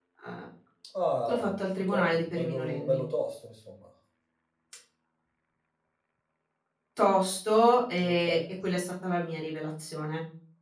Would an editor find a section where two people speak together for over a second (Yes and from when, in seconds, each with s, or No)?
Yes, from 1.3 s